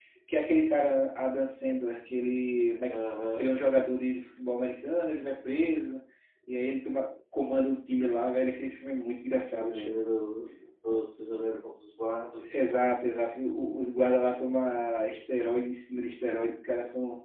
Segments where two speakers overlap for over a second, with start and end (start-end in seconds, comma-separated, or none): none